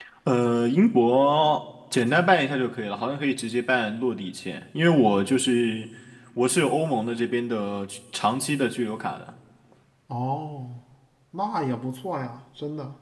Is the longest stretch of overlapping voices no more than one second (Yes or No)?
Yes